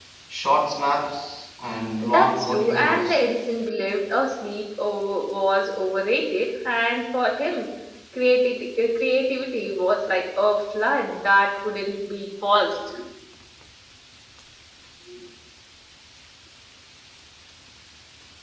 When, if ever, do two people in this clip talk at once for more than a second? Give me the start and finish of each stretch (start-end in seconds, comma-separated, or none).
2.0-3.2